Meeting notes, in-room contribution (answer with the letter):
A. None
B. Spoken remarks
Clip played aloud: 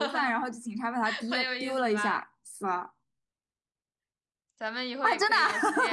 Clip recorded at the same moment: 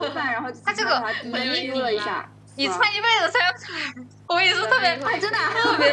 B